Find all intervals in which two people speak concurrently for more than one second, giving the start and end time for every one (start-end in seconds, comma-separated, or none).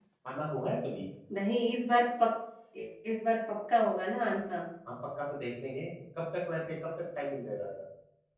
none